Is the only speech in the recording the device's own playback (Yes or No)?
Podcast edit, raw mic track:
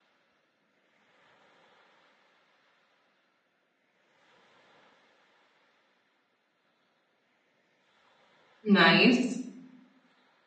No